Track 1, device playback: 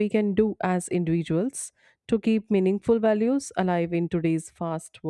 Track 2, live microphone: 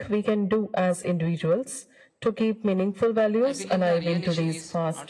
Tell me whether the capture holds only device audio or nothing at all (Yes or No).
No